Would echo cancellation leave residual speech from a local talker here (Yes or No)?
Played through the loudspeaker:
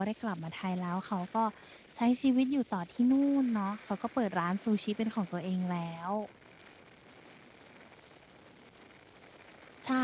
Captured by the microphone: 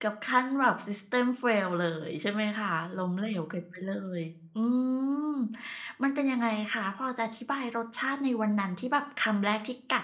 Yes